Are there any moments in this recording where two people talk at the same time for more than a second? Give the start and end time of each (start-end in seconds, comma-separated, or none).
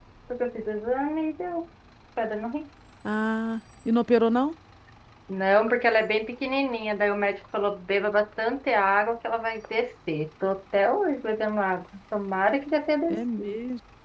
none